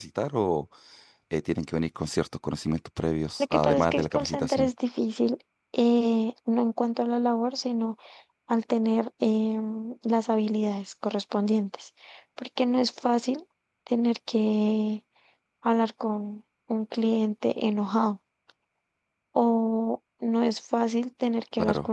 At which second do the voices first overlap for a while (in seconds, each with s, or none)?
3.4 s